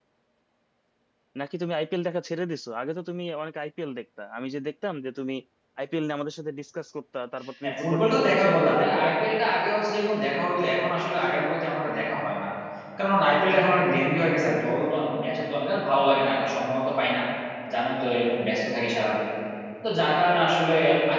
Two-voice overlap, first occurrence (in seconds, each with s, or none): 7.6 s